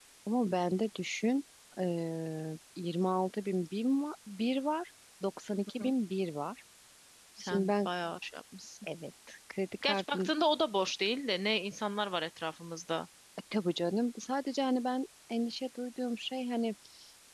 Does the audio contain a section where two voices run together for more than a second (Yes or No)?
No